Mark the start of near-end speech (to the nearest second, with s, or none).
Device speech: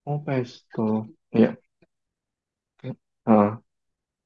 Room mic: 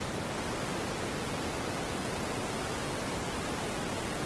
none